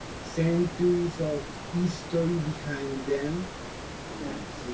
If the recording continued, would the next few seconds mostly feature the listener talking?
No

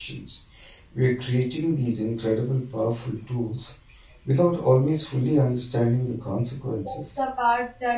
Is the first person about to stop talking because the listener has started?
Yes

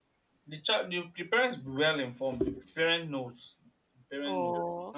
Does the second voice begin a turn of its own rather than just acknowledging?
Yes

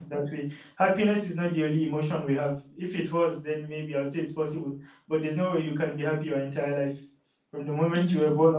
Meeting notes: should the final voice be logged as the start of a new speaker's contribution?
No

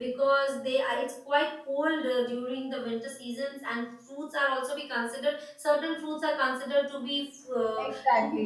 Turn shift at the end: Yes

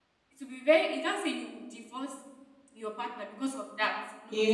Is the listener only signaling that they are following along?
No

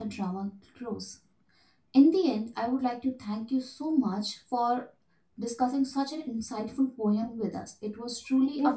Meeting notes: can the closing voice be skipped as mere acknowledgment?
No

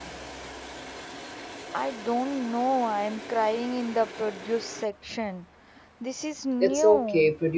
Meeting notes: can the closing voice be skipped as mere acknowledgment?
No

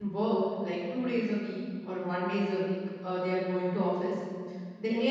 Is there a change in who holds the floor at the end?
No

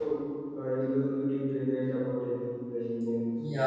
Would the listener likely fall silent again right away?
No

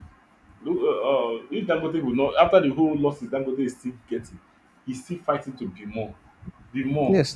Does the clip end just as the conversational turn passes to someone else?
No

